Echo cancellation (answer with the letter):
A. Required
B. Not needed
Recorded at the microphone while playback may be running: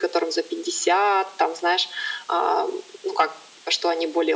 A